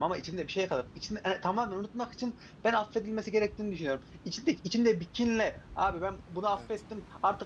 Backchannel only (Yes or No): Yes